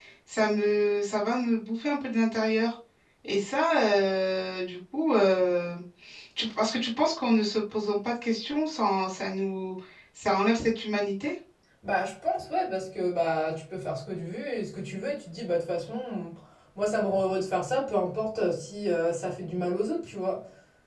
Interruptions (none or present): none